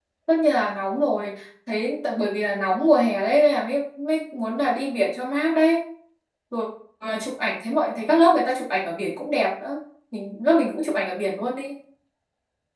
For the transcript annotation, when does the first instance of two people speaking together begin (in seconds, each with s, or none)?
none